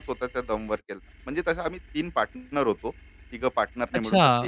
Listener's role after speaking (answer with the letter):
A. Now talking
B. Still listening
A